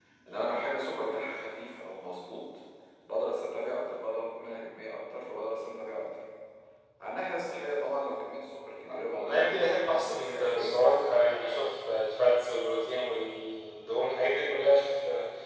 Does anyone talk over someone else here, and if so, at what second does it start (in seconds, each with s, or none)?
8.8 s